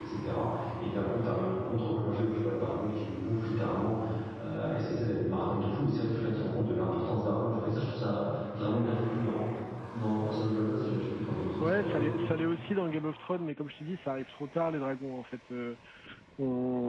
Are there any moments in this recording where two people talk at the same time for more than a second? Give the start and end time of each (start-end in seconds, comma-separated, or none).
none